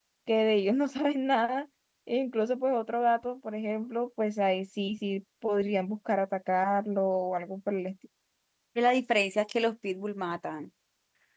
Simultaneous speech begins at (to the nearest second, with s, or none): none